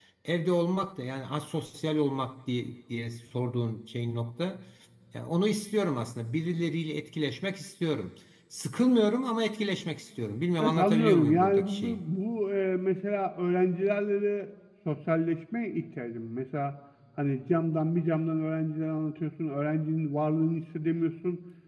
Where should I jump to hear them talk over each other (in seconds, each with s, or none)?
10.6 s